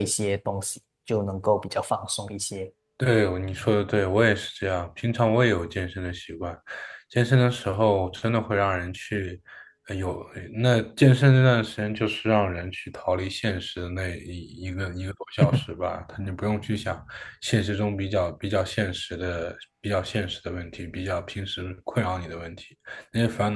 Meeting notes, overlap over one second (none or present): none